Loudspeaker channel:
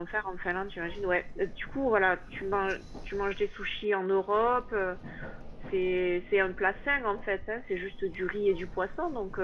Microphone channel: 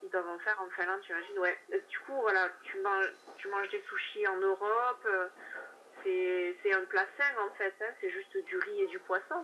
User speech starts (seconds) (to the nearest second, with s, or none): none